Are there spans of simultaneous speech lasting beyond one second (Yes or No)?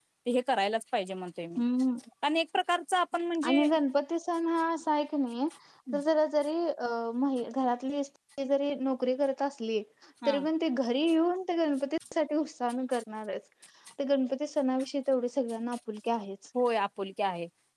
No